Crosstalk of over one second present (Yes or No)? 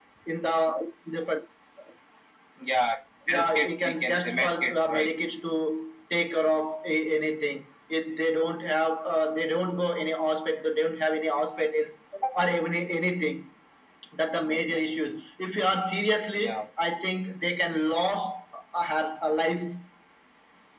Yes